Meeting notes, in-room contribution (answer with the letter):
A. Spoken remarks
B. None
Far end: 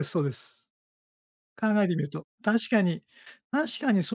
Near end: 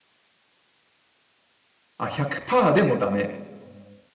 A